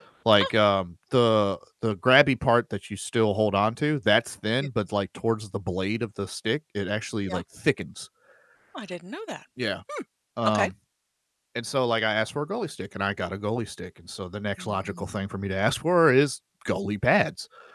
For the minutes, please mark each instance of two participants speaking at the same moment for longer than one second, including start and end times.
none

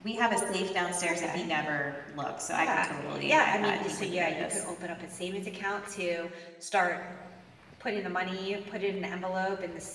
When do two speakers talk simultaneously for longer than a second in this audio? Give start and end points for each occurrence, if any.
2.5-4.6

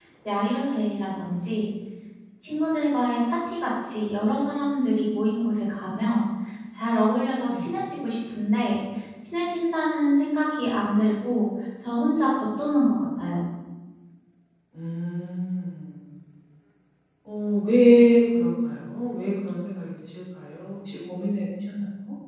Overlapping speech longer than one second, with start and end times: none

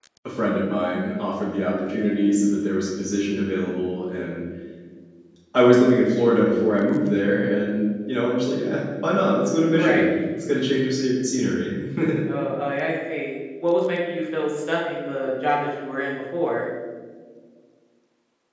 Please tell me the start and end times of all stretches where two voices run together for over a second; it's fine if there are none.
none

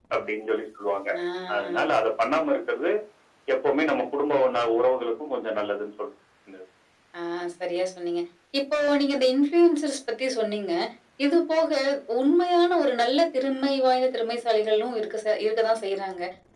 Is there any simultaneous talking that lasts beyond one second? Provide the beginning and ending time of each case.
none

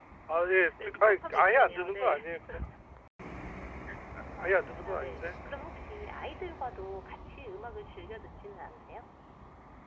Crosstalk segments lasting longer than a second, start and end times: 0.8-2.1

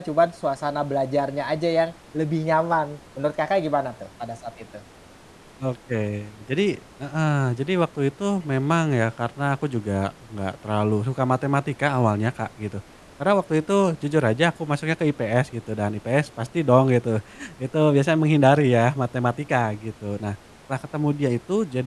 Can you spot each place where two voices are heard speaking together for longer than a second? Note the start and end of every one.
none

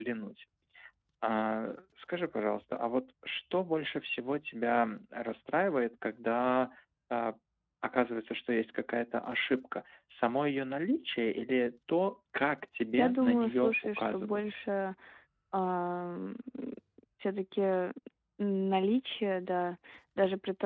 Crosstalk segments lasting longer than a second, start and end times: 13.0-14.4

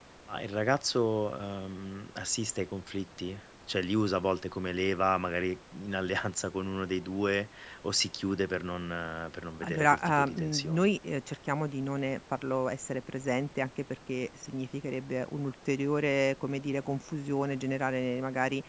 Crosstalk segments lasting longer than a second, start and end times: 9.6-10.9

